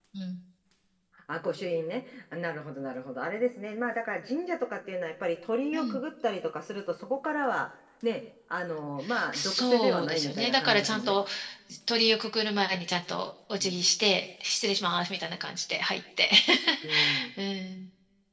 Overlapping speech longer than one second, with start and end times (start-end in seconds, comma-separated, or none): 9.3-11.2